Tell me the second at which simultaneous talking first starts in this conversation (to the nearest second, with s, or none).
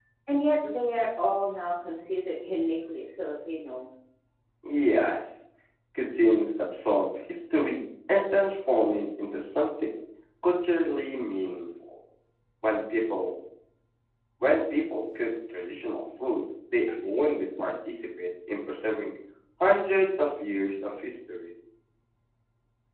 none